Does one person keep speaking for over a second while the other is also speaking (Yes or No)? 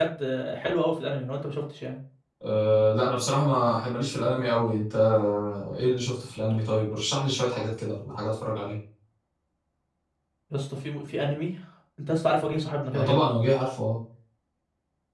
No